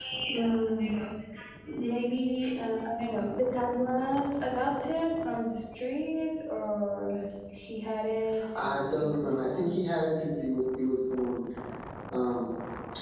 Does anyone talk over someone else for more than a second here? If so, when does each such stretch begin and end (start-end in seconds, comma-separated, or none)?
8.6-9.8